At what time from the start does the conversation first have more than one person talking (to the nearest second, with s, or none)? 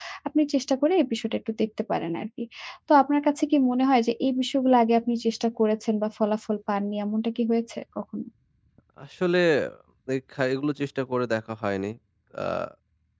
none